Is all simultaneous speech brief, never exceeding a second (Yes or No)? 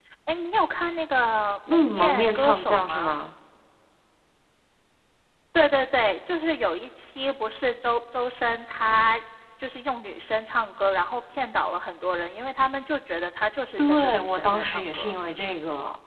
No